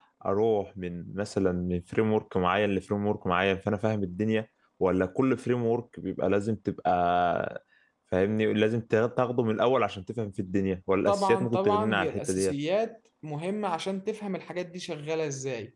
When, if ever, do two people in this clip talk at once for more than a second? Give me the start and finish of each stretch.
11.1-12.5

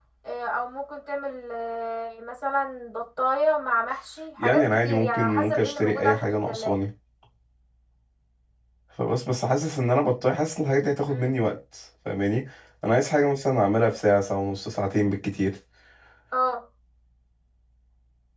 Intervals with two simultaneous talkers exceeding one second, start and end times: 4.4-6.8

